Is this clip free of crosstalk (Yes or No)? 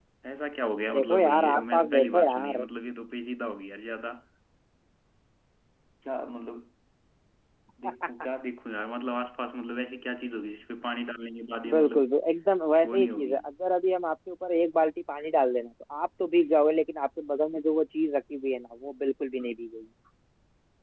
No